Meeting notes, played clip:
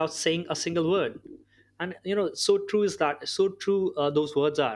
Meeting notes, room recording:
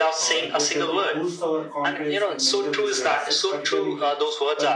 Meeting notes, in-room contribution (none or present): present